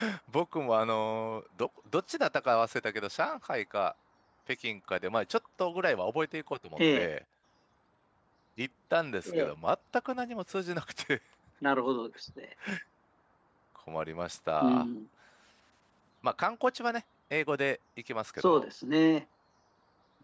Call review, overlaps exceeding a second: none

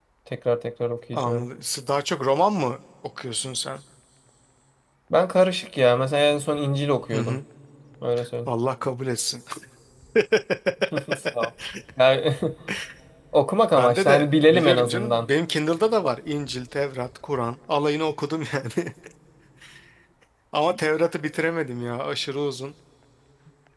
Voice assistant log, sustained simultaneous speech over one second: present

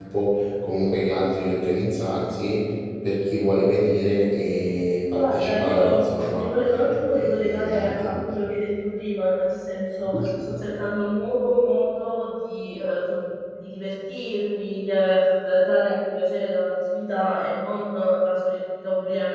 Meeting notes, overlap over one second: present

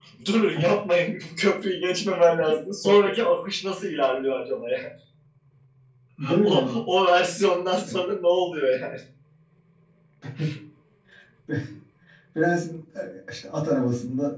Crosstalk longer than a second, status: none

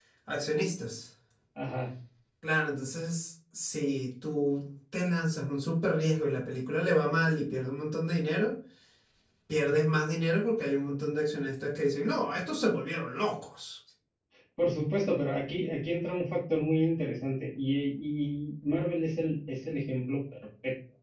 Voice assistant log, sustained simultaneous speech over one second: none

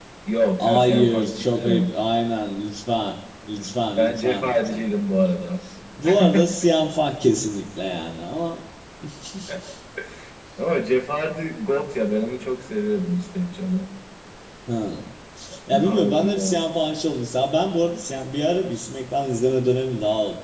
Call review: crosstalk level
present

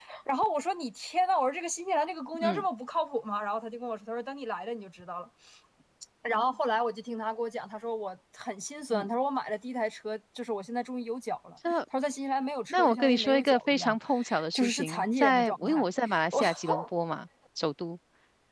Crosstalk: present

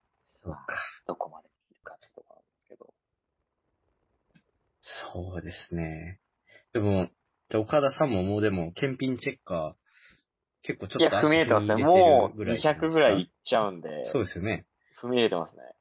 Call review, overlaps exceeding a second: present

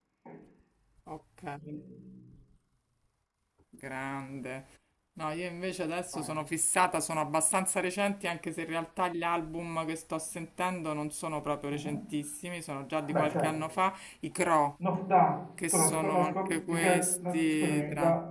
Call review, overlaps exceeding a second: present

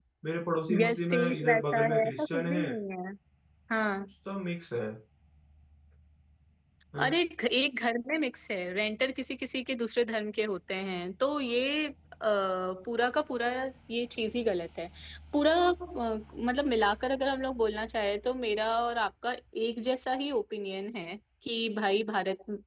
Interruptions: present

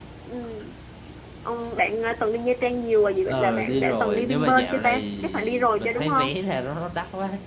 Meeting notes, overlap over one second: present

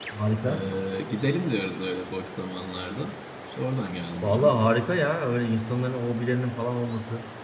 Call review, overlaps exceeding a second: none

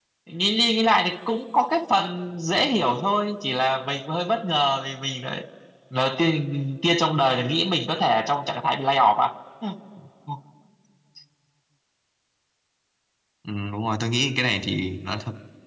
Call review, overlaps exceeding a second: none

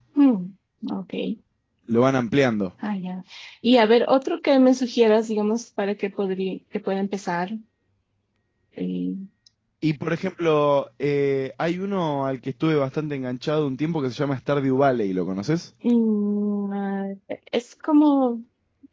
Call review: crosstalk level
none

